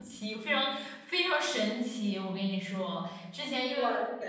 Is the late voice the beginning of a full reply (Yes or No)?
No